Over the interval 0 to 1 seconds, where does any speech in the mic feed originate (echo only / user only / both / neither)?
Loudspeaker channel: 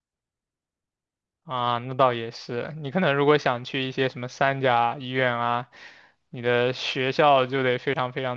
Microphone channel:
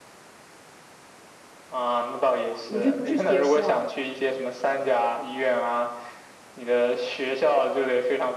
neither